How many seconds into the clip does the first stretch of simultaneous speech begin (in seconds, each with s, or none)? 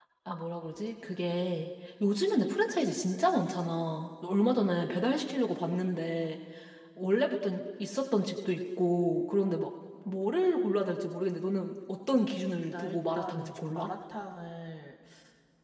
12.7 s